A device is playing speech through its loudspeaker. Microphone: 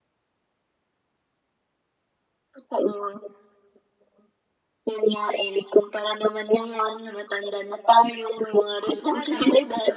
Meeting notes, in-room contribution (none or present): present